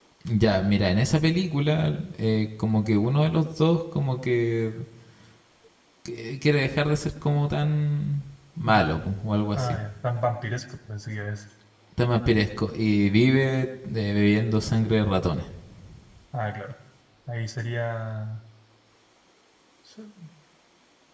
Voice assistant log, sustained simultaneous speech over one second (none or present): none